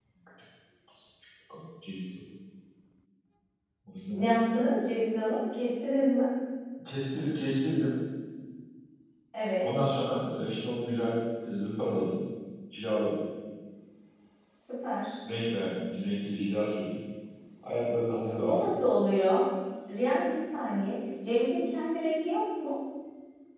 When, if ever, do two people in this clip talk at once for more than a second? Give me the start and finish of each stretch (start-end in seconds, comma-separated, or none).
none